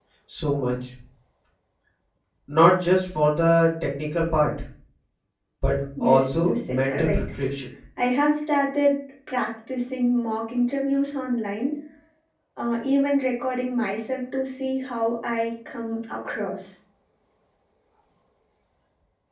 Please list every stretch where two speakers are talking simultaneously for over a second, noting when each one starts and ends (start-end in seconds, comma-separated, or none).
6.0-7.2